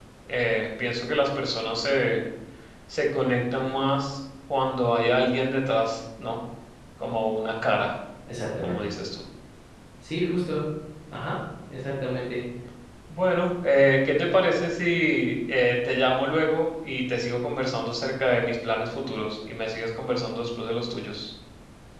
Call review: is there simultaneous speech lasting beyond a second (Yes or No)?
No